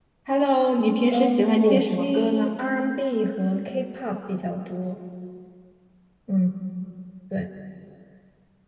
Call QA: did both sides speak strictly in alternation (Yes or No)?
No